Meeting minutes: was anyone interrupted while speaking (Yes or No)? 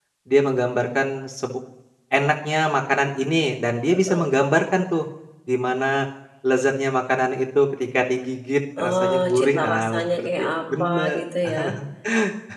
Yes